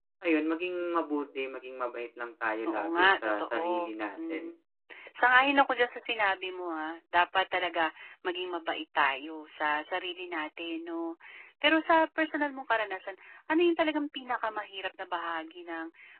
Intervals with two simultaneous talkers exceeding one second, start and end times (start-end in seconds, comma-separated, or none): 2.6-4.4